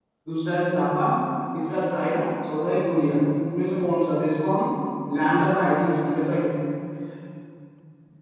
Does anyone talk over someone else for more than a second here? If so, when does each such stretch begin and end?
none

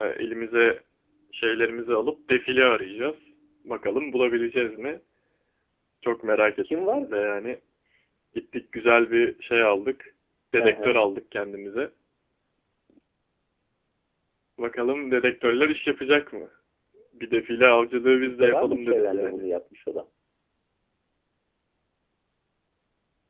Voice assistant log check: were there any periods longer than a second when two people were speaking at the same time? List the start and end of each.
18.2-19.5

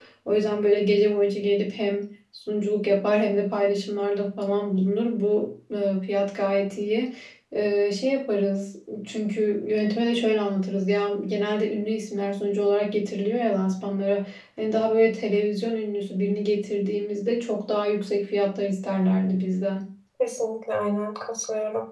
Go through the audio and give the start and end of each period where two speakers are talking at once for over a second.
none

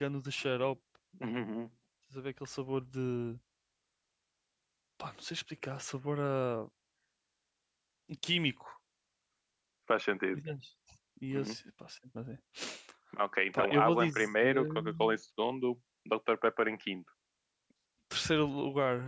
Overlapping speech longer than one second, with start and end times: 13.5-15.1

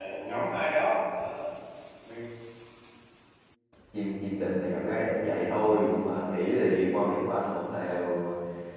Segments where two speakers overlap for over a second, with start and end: none

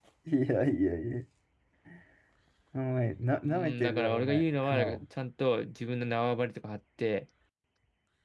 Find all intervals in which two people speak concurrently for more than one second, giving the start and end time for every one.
3.4-5.0

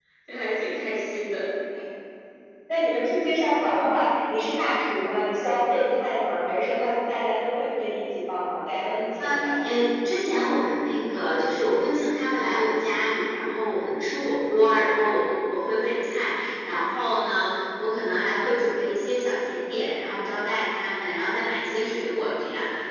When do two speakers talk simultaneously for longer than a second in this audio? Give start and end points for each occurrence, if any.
none

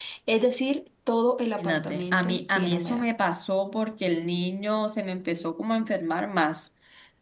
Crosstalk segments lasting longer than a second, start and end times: 1.6-3.1

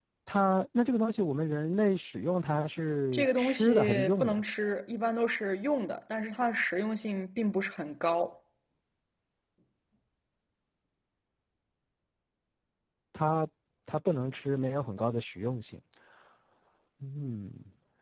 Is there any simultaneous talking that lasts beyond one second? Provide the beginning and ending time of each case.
3.1-4.4

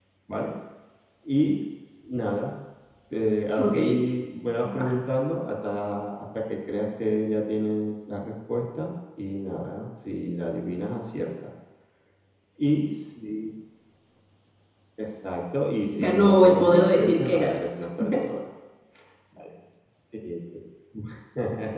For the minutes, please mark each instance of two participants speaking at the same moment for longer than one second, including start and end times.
16.0-17.6

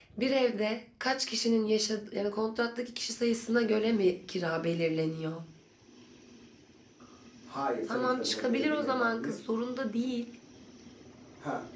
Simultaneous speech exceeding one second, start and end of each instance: 7.9-9.4

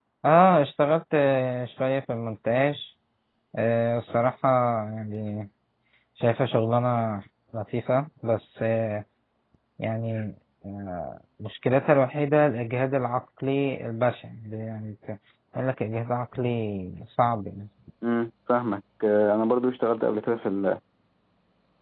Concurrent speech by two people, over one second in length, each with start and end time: none

